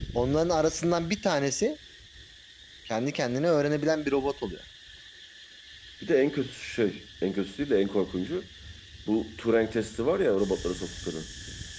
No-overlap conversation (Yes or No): Yes